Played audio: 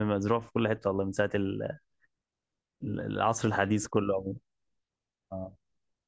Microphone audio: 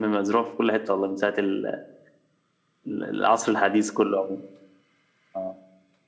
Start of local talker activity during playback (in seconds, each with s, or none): none